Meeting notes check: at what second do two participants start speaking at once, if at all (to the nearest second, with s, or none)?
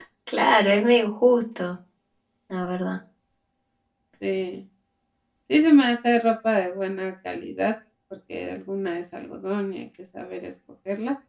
none